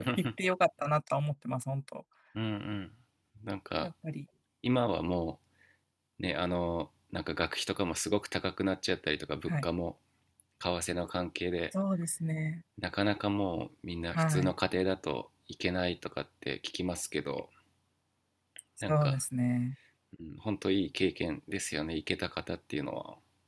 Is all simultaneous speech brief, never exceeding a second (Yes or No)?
Yes